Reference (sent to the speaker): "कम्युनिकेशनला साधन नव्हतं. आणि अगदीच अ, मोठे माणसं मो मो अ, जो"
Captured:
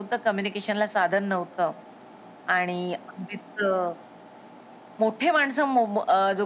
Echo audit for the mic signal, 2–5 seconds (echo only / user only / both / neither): echo only